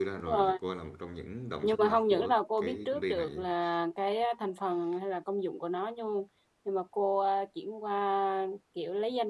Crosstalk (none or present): present